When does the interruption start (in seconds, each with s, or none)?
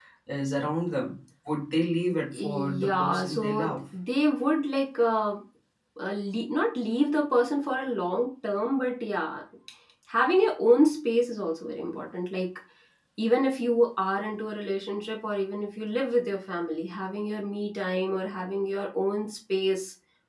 2.3 s